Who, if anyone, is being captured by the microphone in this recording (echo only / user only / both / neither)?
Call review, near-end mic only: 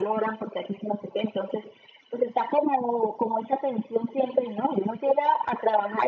echo only